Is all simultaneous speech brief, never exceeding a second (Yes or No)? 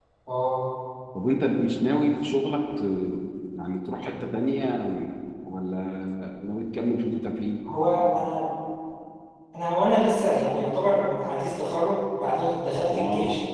Yes